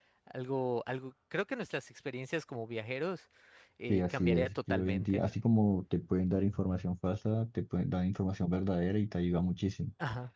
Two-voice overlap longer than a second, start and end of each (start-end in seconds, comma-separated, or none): 3.9-5.2